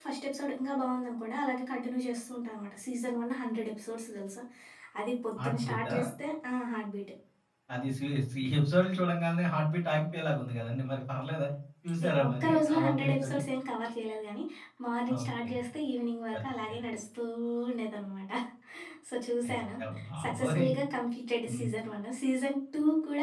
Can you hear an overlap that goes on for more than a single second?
Yes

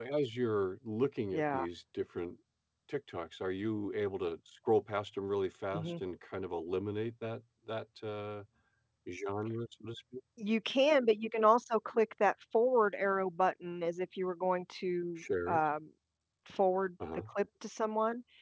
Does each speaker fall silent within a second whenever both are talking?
Yes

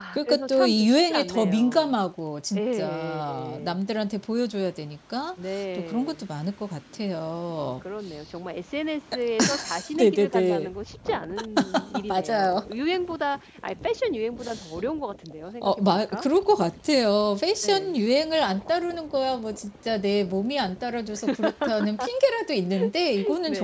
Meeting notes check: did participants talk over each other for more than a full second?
Yes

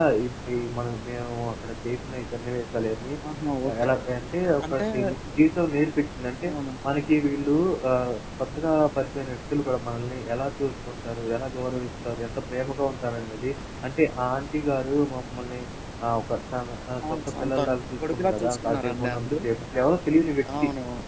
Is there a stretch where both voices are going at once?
Yes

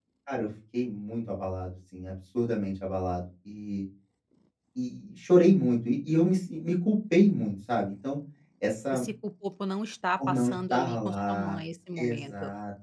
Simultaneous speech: Yes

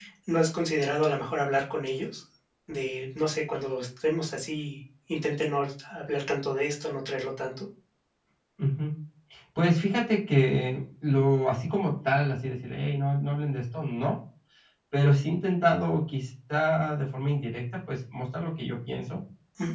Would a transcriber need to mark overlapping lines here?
No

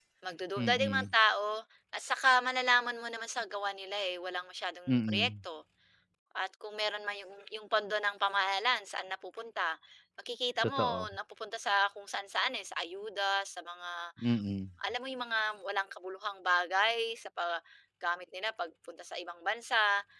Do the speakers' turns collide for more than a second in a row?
No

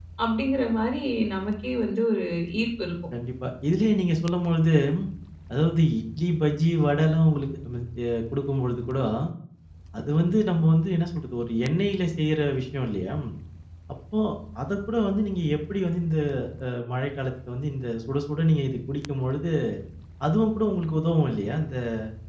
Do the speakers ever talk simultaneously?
No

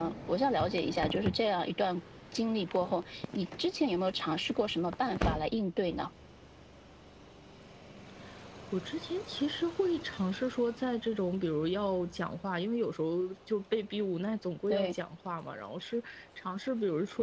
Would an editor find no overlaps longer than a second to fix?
Yes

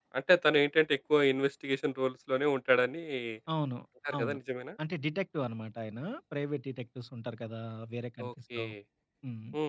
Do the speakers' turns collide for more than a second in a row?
No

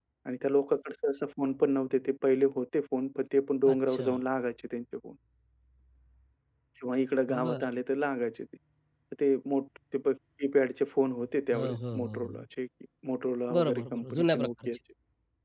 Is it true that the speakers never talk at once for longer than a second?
No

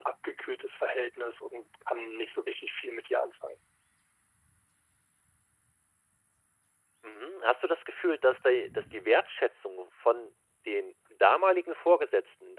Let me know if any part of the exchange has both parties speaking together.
No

